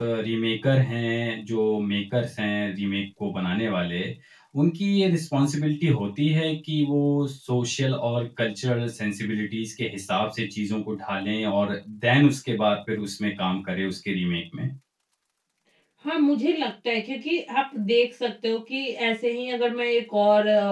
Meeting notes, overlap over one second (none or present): none